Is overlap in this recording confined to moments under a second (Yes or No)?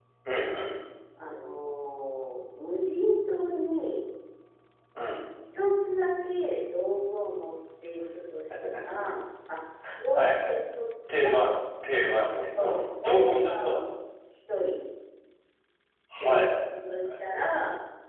No